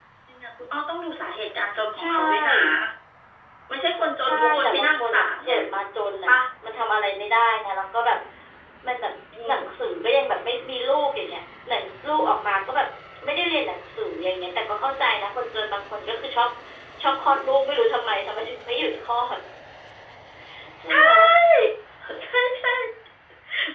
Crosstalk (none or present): present